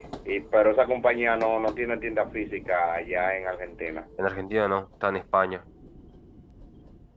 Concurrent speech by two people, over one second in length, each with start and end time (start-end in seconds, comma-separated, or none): none